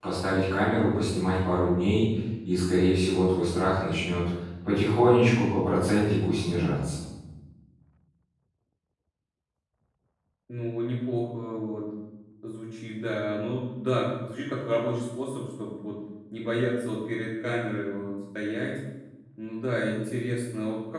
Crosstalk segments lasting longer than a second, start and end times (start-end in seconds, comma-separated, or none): none